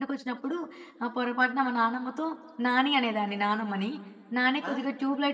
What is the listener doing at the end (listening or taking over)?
listening